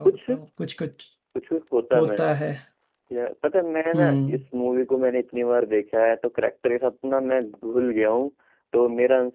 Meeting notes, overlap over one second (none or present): none